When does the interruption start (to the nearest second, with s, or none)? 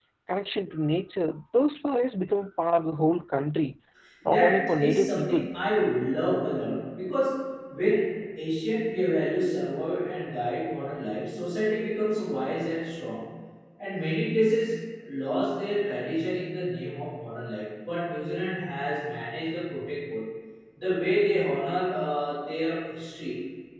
4 s